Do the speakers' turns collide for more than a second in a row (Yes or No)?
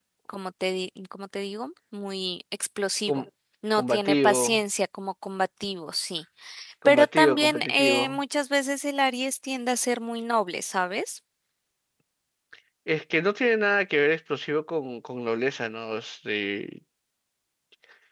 Yes